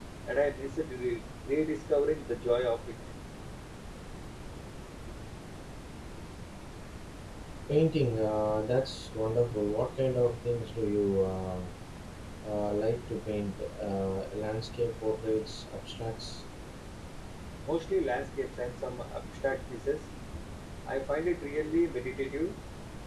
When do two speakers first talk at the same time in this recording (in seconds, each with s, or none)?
none